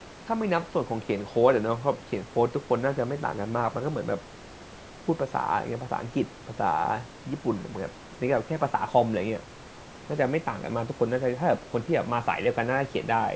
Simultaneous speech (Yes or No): No